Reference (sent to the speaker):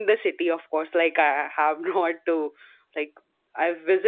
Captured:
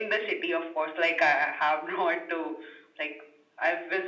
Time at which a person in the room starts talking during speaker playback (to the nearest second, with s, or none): none